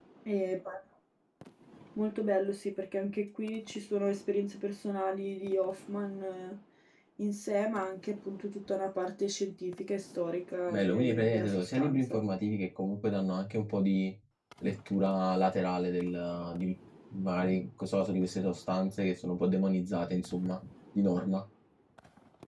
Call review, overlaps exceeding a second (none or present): present